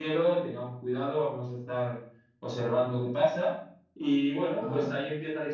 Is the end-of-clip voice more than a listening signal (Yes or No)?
No